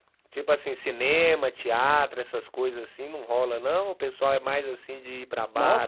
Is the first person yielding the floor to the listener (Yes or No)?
Yes